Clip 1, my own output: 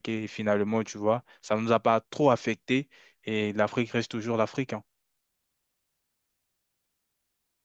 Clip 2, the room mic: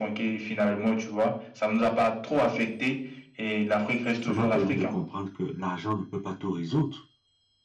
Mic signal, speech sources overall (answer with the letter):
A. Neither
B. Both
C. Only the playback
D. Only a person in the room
B